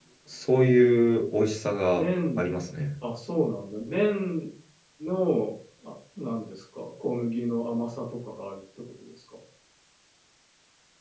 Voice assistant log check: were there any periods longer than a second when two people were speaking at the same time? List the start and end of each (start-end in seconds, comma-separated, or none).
none